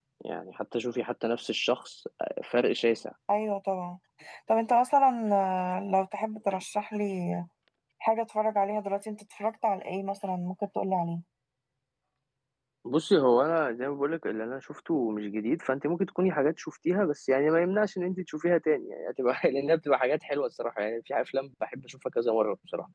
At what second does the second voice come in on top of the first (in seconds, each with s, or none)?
none